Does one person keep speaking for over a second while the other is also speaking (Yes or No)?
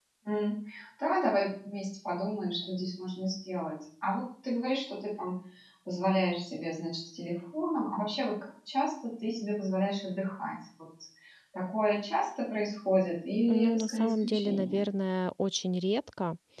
Yes